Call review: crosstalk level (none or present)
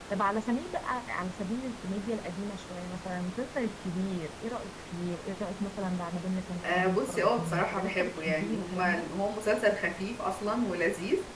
present